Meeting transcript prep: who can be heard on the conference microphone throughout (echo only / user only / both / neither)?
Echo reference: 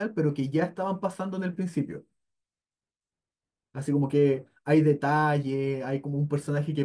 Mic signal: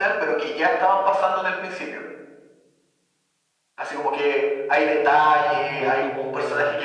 both